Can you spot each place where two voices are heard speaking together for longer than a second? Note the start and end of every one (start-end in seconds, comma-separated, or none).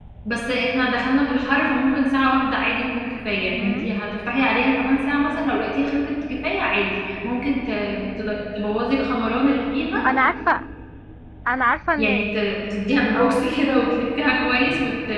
none